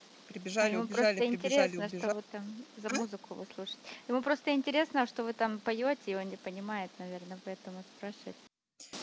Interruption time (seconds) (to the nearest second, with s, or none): 1 s